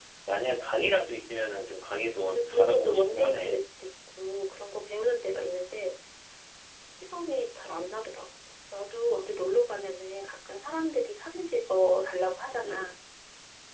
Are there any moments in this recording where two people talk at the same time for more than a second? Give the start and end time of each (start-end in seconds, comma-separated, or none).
2.1-3.5